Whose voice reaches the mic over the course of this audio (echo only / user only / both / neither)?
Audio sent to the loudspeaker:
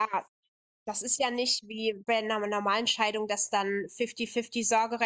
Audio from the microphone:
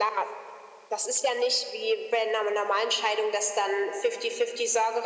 echo only